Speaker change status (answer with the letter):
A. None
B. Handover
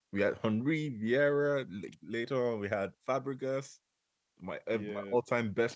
A